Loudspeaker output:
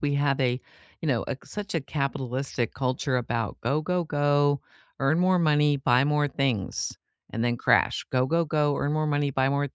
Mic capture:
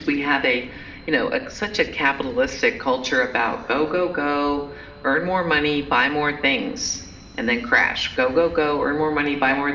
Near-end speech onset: none

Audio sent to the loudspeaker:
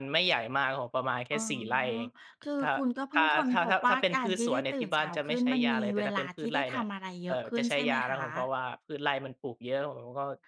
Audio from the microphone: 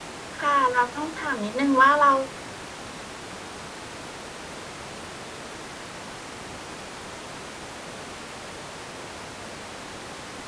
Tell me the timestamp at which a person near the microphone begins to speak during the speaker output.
0.4 s

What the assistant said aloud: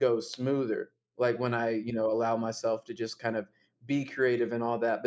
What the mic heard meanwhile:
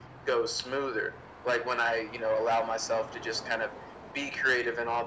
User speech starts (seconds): none

